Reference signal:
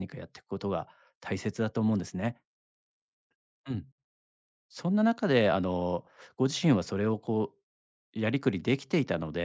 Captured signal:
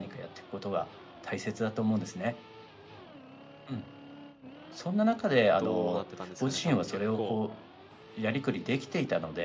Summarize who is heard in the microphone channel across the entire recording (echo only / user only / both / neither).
both